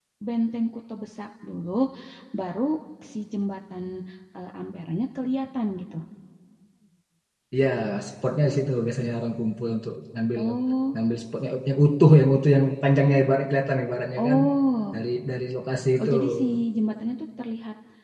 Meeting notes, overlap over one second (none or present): none